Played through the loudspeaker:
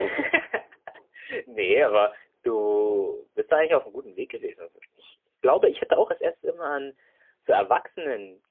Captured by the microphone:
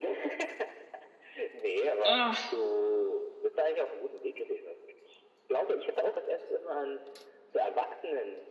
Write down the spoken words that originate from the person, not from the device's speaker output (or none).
Ah,